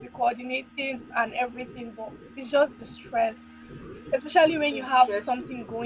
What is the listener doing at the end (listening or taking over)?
listening